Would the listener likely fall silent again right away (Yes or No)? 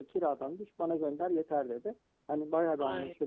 Yes